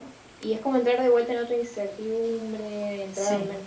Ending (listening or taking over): taking over